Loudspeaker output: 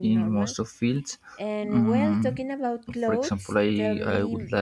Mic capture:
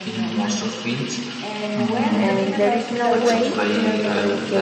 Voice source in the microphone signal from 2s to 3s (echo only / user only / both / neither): both